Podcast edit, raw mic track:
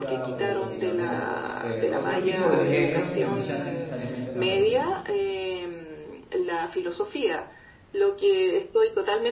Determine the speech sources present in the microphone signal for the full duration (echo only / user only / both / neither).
both